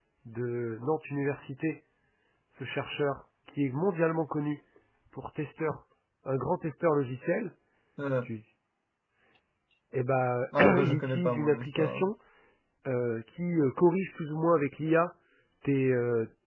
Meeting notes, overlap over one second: present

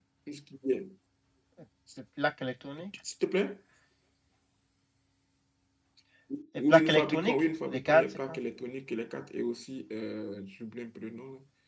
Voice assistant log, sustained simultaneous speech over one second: present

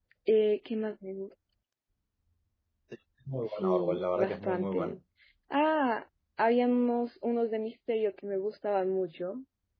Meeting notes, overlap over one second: present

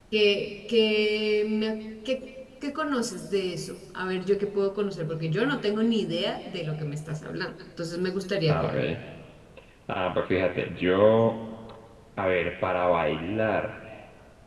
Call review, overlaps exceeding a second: none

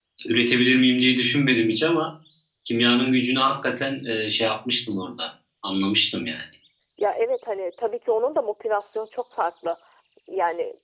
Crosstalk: none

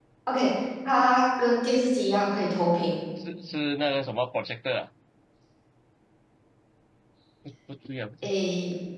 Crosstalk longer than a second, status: none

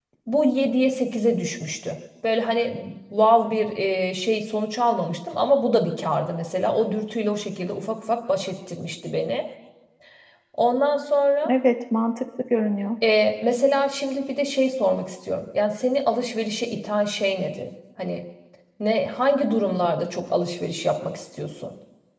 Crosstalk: none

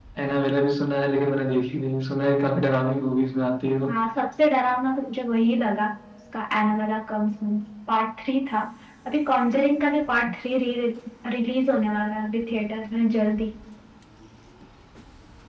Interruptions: none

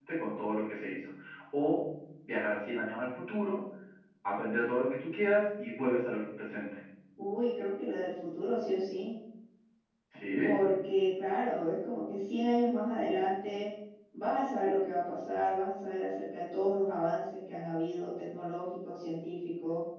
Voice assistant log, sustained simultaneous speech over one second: none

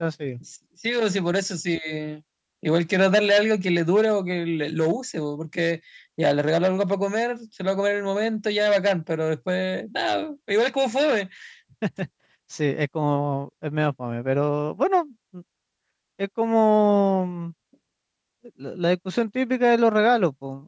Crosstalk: none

